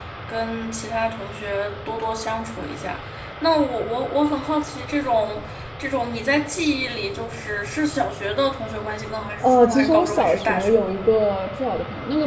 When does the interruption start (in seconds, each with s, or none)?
9.4 s